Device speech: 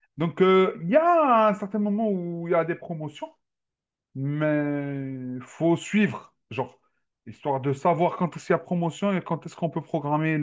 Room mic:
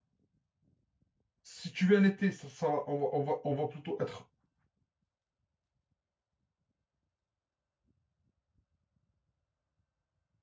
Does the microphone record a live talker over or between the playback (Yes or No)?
Yes